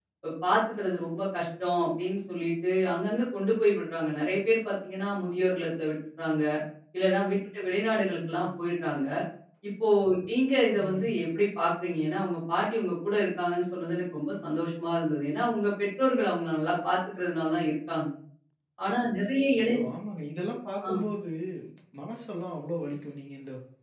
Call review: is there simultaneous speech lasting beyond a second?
No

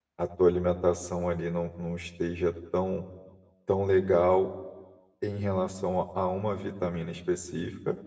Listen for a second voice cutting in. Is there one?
No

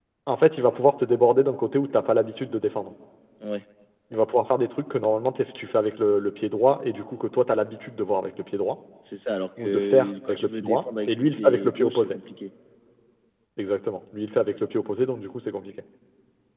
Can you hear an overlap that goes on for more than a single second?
Yes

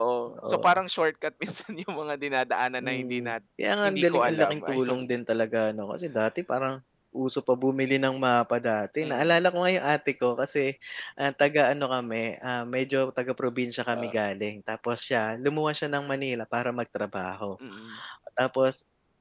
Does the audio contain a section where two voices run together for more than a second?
Yes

